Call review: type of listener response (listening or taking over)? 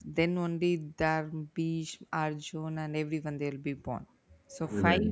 listening